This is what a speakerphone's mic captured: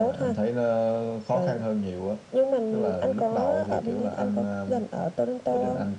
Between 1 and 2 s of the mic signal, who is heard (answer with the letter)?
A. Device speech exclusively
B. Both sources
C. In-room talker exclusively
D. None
A